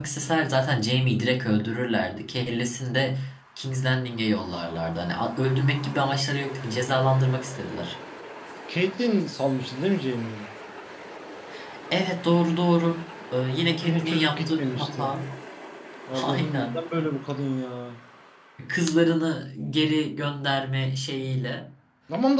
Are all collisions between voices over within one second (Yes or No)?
No